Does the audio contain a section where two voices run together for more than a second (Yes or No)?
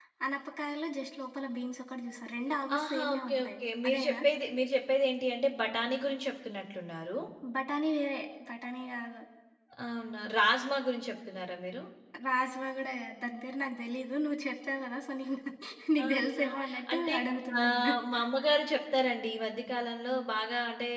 Yes